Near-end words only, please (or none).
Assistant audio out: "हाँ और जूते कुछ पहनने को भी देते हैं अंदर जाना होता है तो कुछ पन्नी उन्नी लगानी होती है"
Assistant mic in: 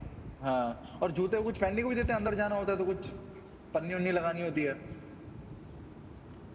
none